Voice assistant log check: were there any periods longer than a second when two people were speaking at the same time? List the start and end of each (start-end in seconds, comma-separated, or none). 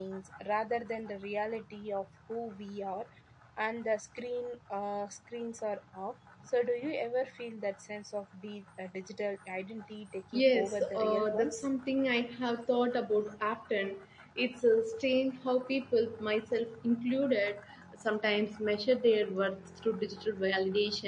10.3-11.7